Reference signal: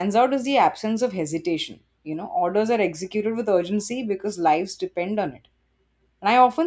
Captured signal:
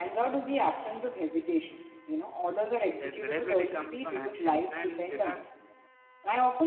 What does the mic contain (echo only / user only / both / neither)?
both